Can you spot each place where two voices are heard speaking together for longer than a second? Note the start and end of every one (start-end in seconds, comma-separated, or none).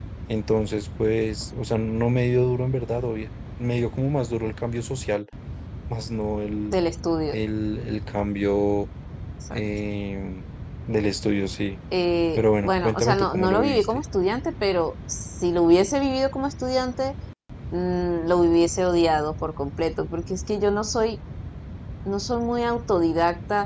12.3-14.0